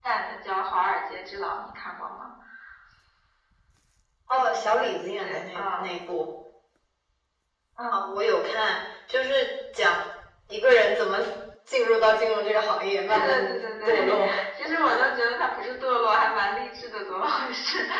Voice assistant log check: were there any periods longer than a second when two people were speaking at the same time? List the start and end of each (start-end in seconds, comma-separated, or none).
4.3-5.8, 13.1-14.3